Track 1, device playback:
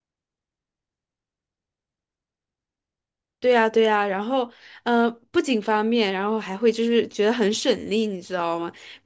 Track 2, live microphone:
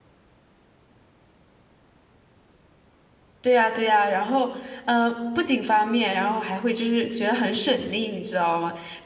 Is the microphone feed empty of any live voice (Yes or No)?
Yes